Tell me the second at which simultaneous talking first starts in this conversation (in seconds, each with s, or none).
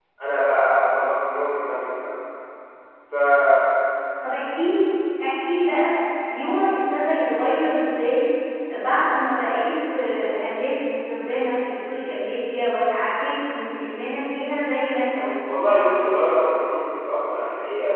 none